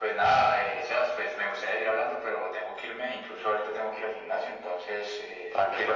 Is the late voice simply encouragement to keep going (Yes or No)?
No